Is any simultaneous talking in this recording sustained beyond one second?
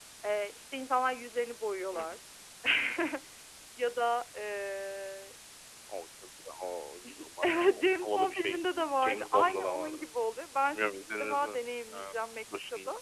Yes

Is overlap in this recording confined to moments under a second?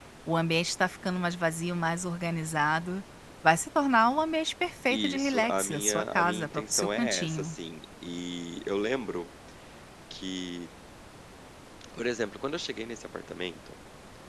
No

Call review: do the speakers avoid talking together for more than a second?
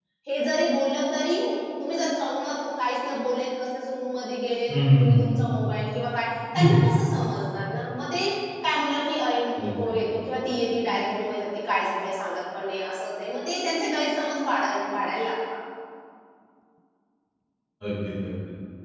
Yes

